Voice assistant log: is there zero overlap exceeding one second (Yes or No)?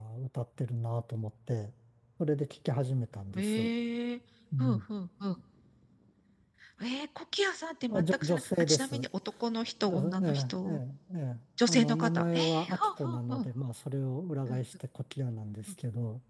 No